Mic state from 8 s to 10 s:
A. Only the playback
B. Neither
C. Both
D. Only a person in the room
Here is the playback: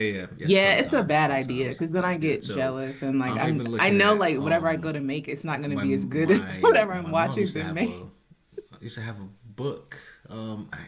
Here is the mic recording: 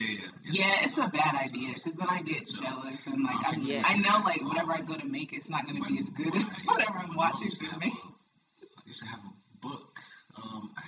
A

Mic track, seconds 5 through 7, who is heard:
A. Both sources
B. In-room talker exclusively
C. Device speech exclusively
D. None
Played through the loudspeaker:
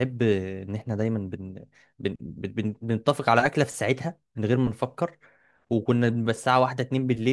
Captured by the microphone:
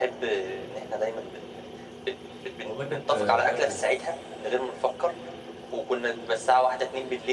C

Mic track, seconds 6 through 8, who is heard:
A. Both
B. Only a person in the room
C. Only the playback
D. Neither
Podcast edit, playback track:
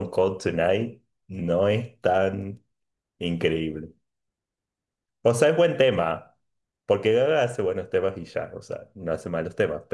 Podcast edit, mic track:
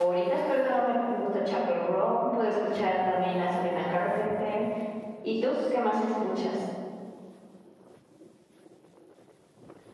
B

